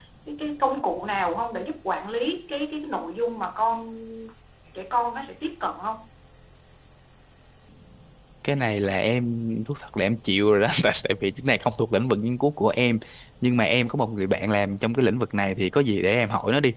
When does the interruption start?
none

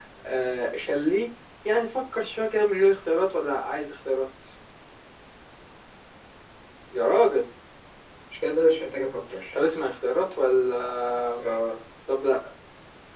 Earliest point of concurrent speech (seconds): none

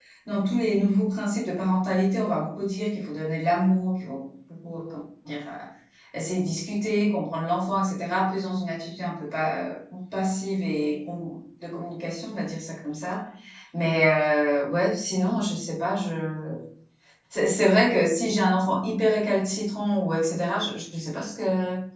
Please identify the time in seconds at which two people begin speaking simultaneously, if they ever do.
none

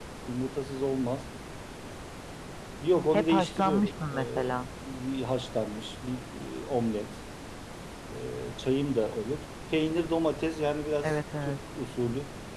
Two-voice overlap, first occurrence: 3.1 s

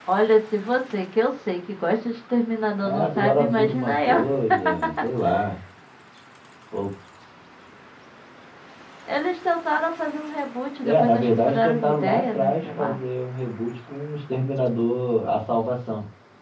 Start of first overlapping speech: 2.8 s

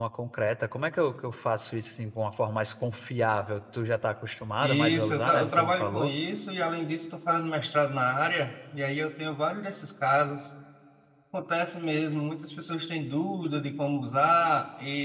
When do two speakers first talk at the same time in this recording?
4.6 s

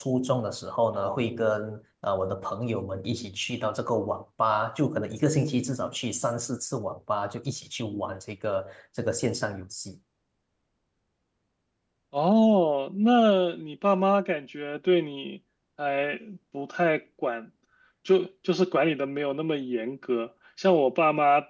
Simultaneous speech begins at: none

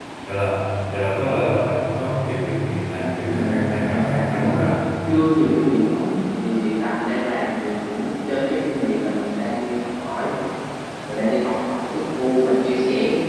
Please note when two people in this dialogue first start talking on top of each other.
3.0 s

